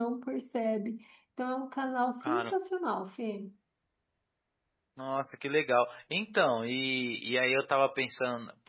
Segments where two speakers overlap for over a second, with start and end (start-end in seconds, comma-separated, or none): none